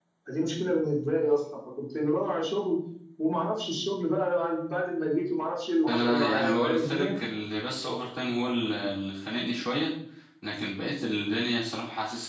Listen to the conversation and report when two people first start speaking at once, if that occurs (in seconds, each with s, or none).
5.9 s